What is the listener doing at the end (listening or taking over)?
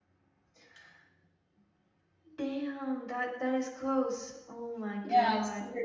taking over